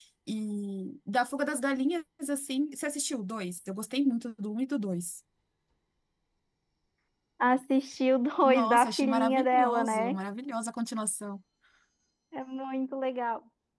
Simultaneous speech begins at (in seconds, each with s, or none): 8.4 s